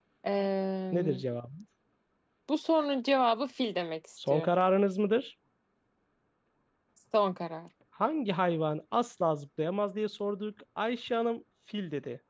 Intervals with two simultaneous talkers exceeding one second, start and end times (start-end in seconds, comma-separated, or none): none